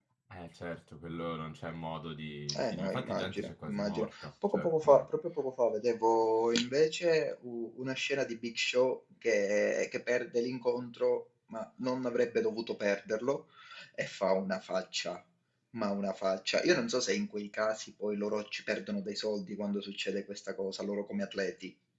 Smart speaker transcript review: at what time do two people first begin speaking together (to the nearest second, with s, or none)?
2 s